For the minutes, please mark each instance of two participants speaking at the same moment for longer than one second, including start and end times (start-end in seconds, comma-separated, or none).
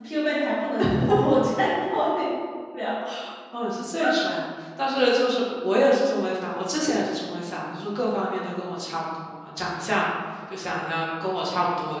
none